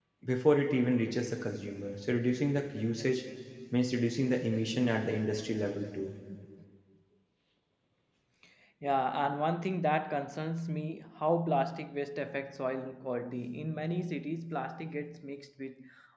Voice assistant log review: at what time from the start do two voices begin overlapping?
none

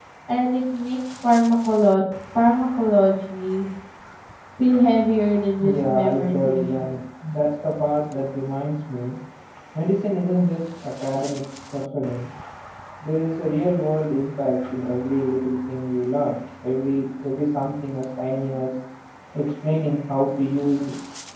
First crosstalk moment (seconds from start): 5.6 s

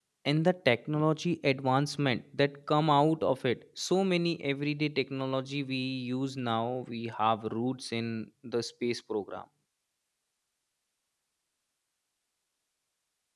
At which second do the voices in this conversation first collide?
none

